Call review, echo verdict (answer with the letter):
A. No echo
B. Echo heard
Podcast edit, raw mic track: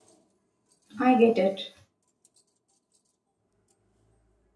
A